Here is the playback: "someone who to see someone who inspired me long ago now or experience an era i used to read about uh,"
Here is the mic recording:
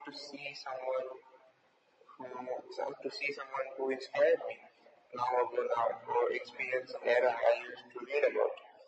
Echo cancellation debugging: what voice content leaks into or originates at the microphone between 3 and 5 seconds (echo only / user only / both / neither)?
echo only